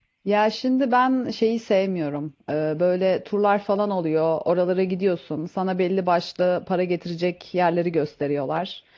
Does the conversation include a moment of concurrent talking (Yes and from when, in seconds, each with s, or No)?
No